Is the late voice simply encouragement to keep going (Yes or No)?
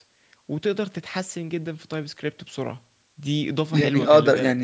No